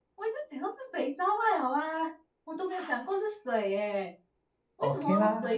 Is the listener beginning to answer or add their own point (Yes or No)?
No